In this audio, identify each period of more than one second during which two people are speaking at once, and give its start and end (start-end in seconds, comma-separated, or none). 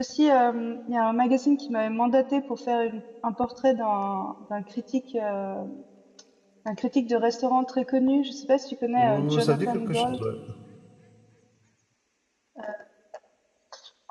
9.0-10.2